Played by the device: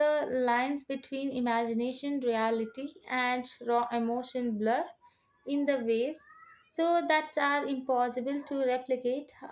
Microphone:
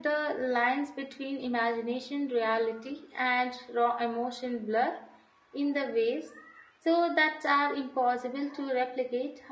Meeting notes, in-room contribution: none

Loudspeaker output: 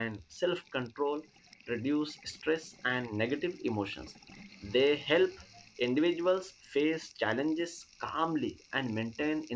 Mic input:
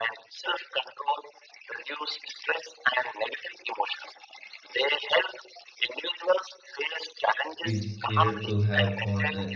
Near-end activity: present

